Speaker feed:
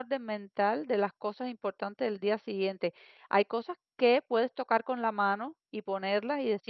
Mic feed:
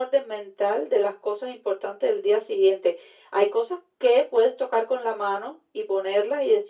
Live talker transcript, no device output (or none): none